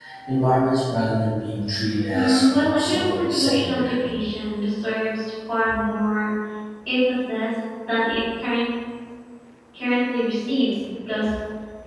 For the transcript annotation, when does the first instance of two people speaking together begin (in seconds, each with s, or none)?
2.1 s